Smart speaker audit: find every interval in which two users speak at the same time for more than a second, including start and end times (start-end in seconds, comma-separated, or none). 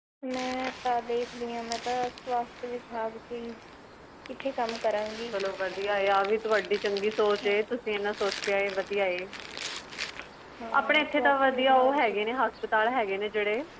10.8-12.1